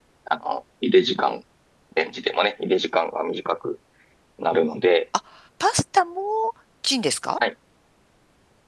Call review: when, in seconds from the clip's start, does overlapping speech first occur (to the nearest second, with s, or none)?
none